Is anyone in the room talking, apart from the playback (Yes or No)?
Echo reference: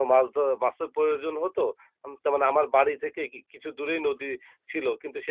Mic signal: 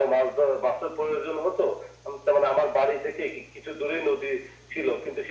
No